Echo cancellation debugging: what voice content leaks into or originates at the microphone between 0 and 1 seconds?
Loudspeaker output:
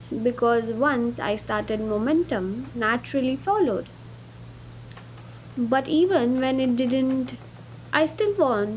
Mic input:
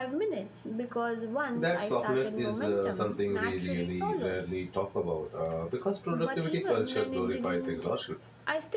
echo only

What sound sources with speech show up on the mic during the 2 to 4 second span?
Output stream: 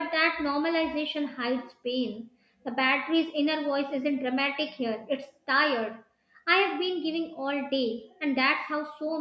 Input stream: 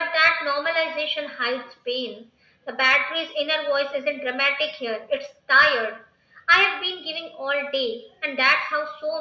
echo only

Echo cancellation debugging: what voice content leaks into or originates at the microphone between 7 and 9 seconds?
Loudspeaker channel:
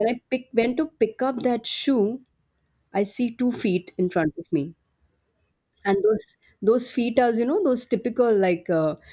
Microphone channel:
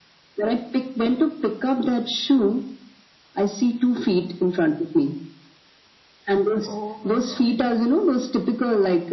both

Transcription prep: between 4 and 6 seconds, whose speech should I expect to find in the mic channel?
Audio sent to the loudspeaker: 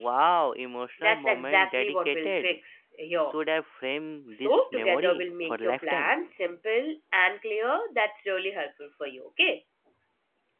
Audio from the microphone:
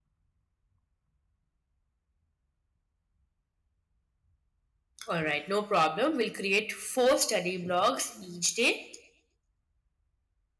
user only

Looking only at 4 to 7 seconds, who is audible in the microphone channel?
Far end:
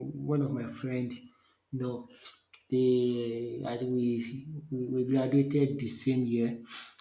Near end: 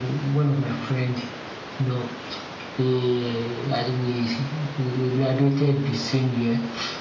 echo only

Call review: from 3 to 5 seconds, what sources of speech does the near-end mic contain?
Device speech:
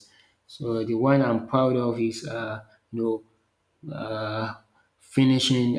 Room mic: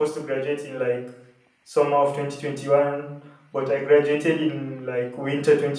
user only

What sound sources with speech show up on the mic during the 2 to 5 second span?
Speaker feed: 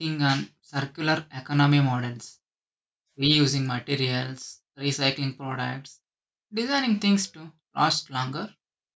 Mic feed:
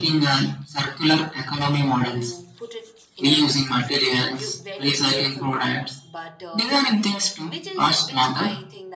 both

